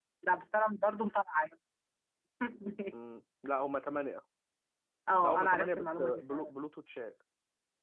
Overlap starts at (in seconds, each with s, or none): 5.2 s